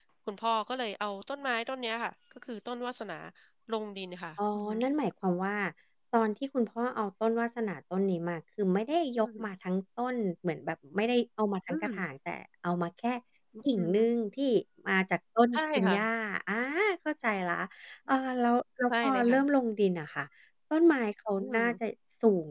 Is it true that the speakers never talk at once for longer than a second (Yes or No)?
Yes